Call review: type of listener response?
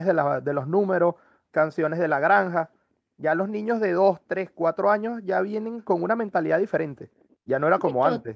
taking over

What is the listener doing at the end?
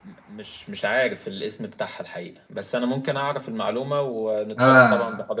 taking over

